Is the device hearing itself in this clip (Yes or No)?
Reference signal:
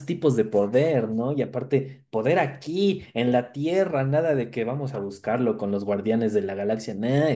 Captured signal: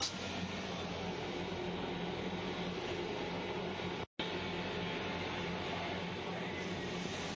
No